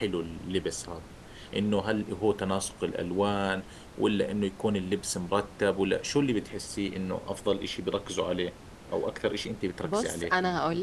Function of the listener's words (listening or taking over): taking over